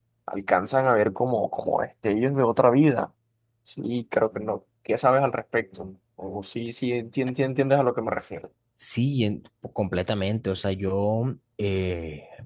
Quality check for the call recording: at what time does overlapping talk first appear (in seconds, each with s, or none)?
none